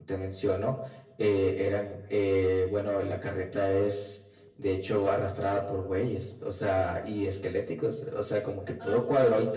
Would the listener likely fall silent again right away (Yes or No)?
Yes